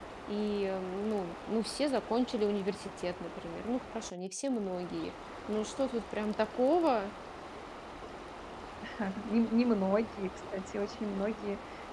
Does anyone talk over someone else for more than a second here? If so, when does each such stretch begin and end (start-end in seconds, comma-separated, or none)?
none